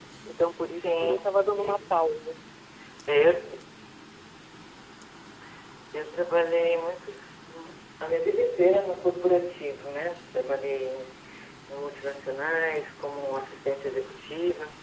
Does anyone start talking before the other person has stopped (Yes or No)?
Yes